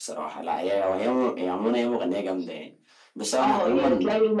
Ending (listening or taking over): taking over